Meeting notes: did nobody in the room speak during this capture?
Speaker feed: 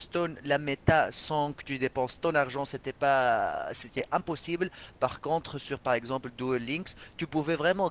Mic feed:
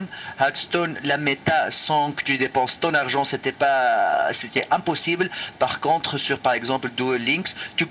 Yes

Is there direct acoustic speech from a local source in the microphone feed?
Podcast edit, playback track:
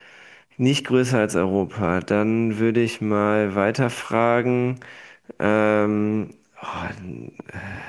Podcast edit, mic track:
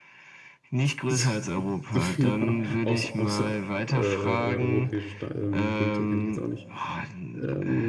Yes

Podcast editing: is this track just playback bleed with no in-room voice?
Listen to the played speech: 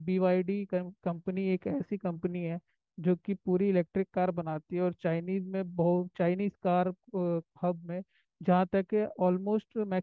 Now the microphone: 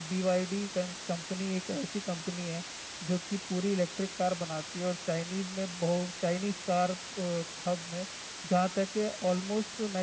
Yes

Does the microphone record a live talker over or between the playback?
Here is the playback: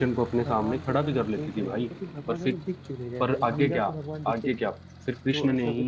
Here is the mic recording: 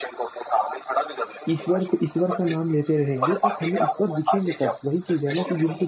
Yes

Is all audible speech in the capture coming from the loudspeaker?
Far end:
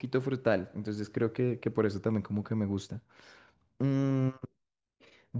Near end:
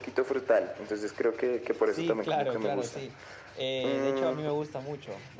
No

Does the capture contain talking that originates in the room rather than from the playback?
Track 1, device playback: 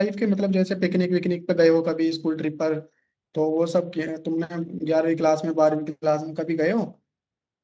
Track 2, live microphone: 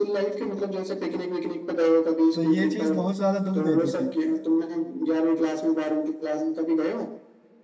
Yes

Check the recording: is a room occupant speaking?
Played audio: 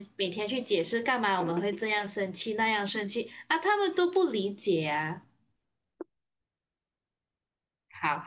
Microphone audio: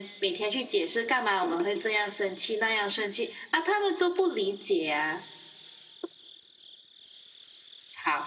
No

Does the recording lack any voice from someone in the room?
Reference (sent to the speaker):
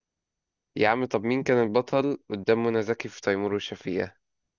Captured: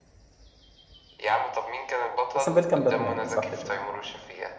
No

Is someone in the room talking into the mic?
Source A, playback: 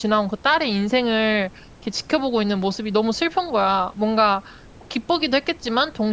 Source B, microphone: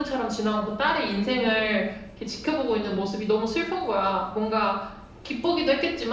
No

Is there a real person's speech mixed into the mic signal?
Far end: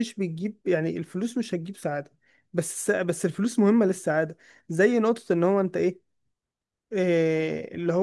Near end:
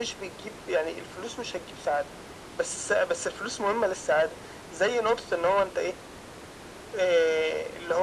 No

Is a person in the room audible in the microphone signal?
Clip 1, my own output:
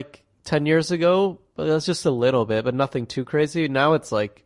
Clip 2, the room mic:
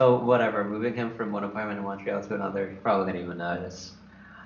Yes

